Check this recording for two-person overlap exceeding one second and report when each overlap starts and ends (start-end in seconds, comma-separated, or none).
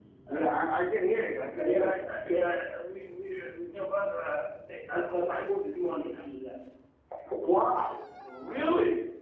none